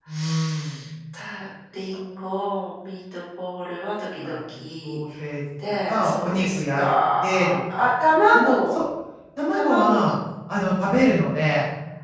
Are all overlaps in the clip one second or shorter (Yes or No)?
No